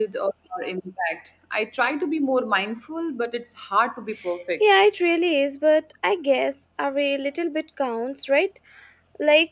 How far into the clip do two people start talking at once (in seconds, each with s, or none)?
none